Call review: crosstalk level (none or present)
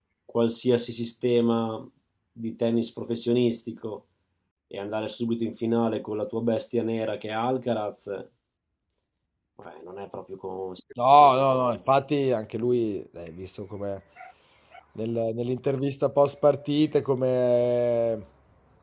none